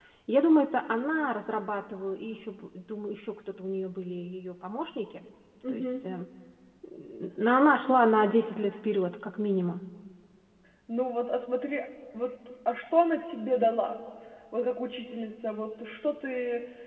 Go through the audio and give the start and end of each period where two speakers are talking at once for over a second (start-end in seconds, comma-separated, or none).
none